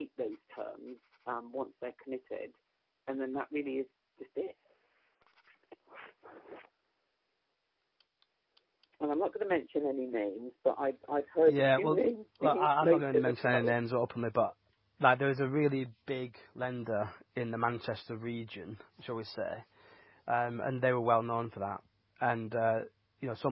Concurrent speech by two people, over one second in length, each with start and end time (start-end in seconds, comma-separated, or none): 12.4-13.7